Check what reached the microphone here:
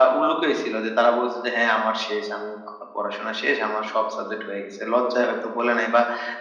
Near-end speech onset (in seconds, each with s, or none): none